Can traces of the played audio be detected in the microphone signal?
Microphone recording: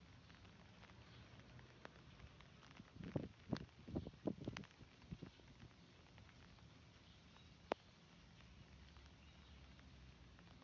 No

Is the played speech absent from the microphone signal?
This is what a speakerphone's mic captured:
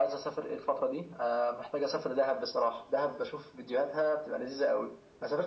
No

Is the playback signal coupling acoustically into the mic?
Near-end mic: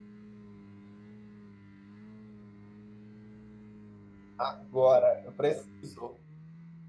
No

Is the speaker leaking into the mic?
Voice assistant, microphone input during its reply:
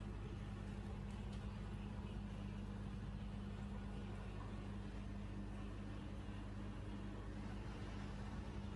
No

